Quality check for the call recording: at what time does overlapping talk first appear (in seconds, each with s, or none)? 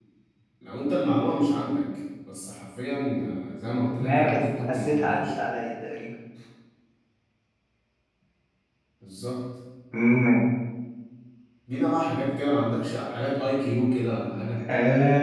4.0 s